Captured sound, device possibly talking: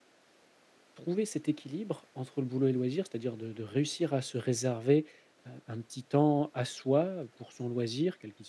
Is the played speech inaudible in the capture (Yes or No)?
Yes